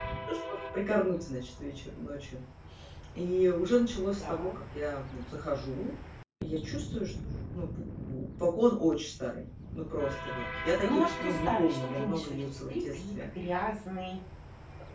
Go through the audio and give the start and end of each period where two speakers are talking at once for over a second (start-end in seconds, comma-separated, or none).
10.8-13.2